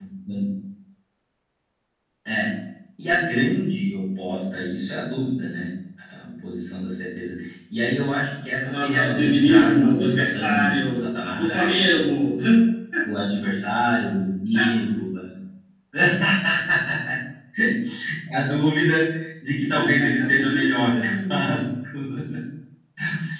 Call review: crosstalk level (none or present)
present